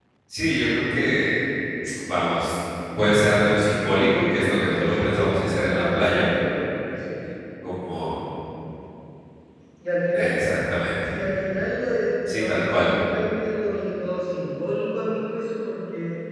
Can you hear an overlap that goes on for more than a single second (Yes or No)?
Yes